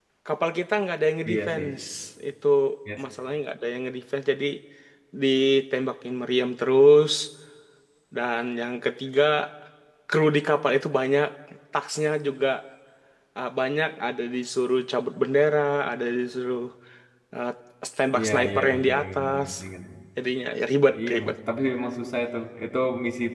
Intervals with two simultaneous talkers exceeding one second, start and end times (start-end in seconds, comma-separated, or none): 18.2-19.5